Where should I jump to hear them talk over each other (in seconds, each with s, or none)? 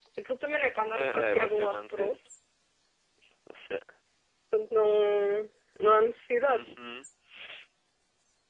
0.9 s